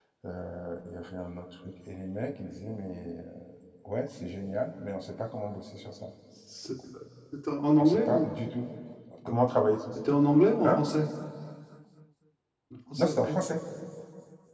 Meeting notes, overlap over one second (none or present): none